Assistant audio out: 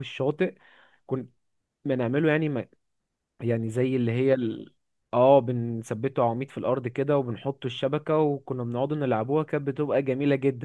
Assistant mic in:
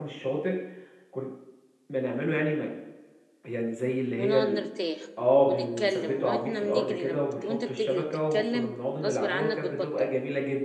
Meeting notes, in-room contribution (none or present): present